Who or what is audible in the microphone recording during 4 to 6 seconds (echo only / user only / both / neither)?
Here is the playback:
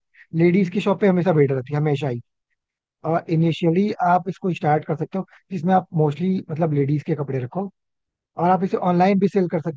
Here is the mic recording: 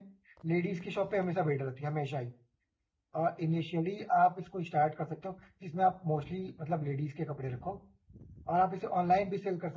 echo only